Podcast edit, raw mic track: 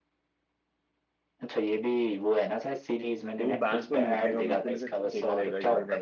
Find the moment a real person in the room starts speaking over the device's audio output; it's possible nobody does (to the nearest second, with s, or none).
3 s